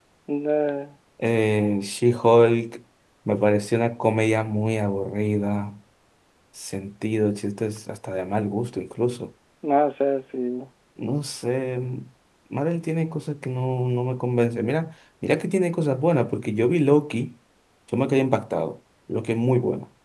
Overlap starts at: none

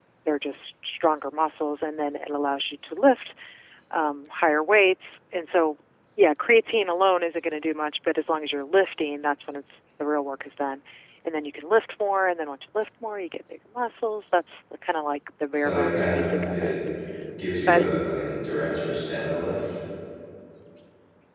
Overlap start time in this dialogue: 15.5 s

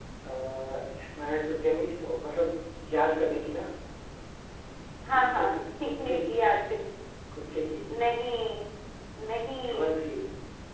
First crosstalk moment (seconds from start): 5.1 s

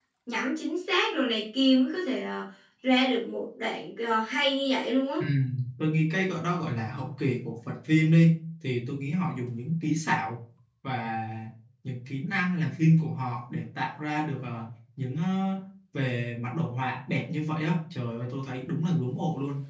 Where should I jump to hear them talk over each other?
none

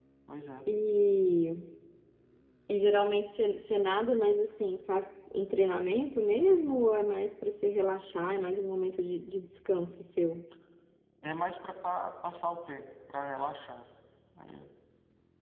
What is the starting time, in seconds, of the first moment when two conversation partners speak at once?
none

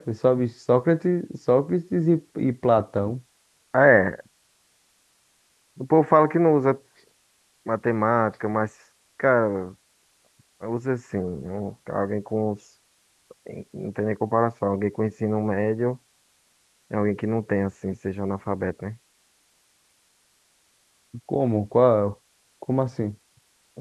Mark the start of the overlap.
none

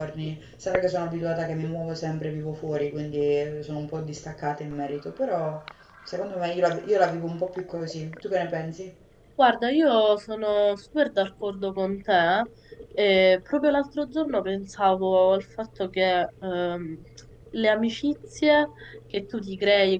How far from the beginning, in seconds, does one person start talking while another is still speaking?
none

